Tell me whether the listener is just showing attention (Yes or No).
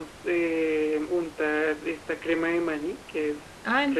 No